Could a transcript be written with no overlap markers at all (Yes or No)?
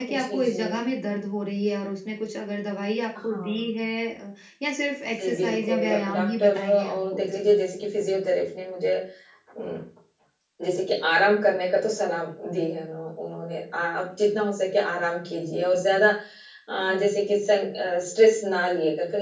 No